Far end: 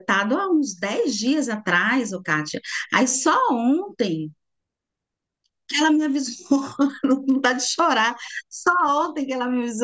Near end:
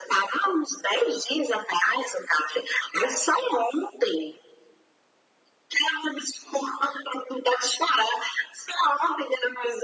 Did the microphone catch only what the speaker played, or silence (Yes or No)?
Yes